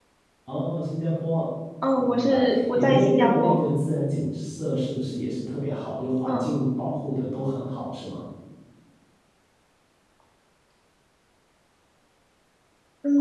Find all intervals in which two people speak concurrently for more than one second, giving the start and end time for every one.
2.0-3.6

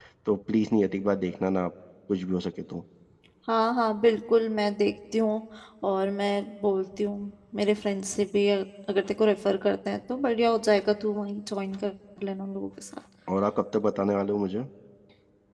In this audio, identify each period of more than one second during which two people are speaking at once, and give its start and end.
none

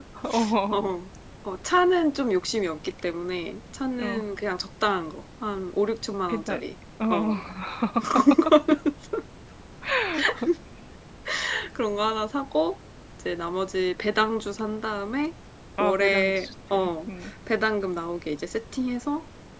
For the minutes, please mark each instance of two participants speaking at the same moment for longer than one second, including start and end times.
15.8-17.1

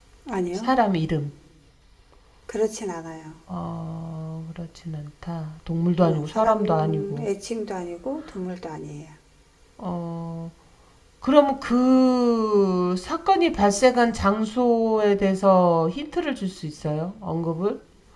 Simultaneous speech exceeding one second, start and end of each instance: 6.0-7.3

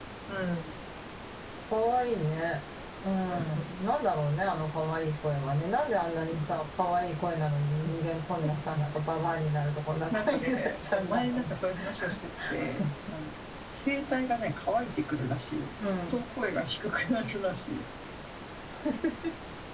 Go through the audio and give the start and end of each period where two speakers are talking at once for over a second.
10.1-11.5

